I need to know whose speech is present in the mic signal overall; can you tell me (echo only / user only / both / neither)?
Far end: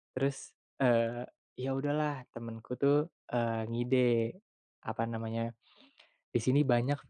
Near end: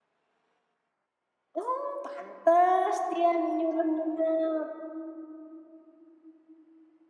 user only